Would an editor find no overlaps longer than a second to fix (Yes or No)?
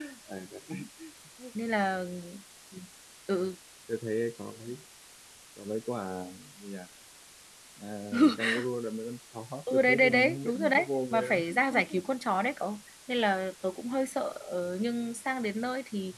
No